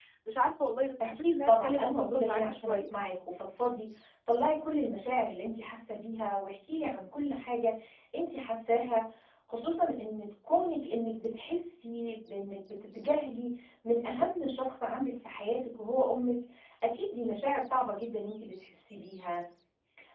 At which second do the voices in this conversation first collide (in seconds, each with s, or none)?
1.0 s